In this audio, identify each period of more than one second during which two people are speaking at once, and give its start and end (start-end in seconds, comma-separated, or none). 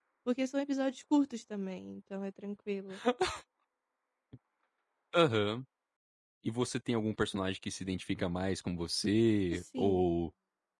none